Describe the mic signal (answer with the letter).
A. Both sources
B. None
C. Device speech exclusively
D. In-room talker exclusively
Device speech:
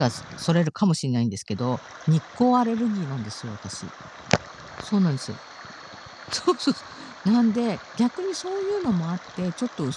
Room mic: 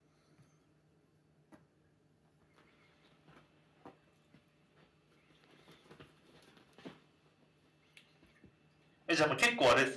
D